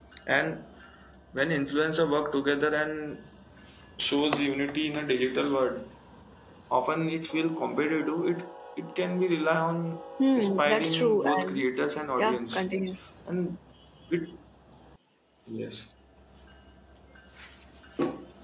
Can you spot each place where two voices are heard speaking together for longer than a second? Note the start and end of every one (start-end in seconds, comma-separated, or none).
10.3-11.6